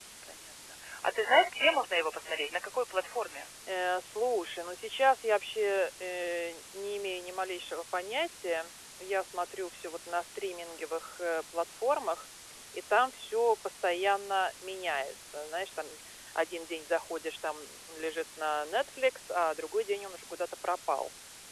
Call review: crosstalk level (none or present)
none